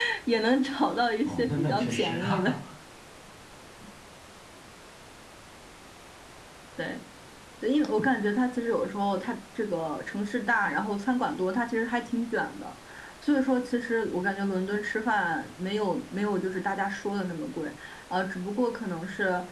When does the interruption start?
1.2 s

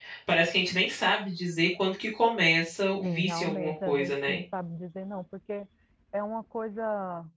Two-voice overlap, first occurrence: 3.0 s

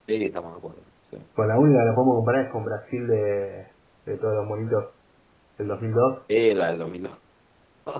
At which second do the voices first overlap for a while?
none

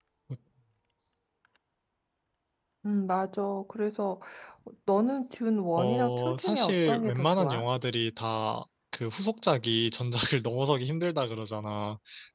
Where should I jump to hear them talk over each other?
5.8 s

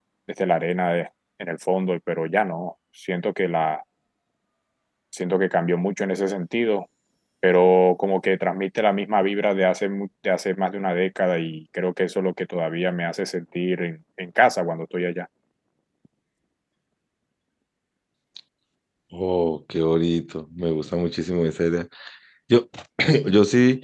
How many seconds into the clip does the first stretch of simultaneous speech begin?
none

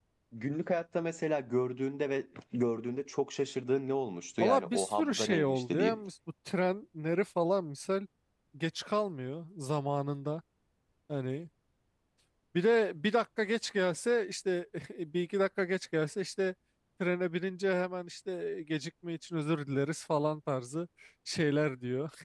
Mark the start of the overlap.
4.4 s

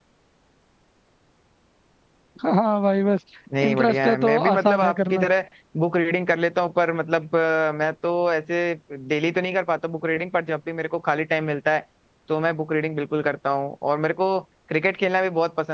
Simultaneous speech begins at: 3.6 s

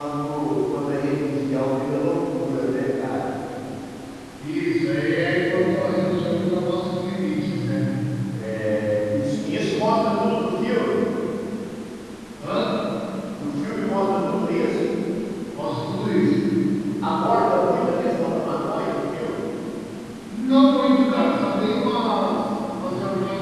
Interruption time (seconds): 5.2 s

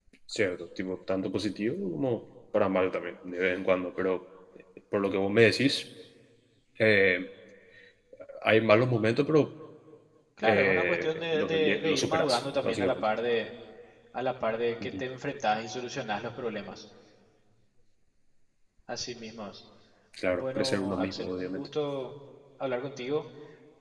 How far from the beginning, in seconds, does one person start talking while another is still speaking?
10.4 s

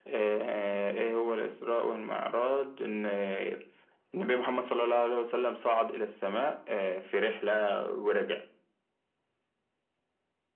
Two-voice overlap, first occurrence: none

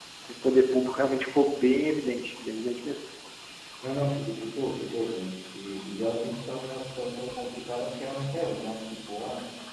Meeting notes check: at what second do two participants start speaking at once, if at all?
none

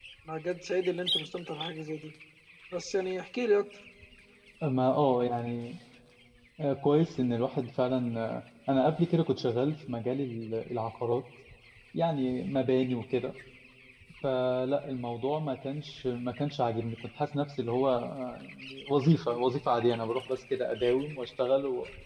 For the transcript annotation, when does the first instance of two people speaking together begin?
none

